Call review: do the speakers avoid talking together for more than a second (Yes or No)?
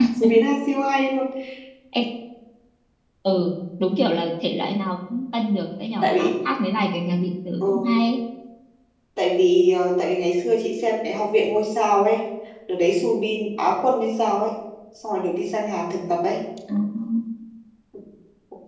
Yes